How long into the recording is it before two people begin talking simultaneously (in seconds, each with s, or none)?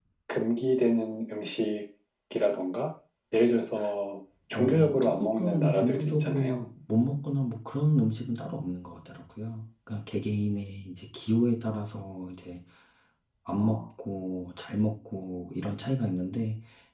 4.5 s